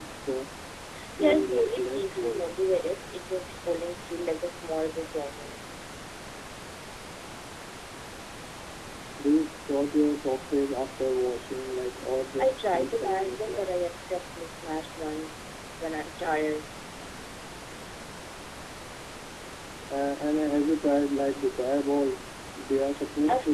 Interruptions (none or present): present